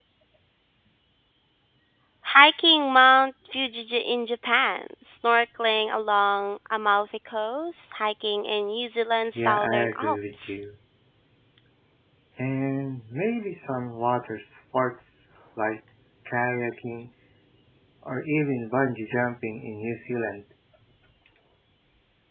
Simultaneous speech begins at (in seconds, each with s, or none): 9.3 s